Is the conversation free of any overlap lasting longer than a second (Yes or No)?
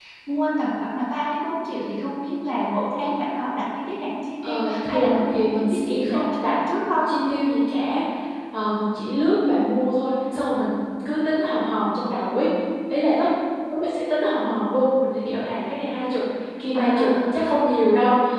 No